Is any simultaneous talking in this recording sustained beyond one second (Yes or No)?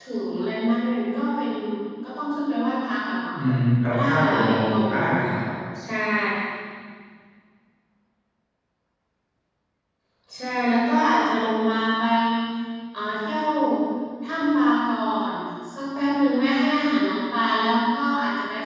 Yes